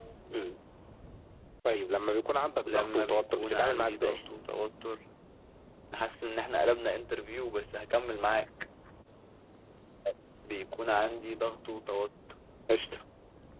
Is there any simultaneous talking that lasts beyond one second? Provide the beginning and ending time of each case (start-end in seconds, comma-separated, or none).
2.7-4.2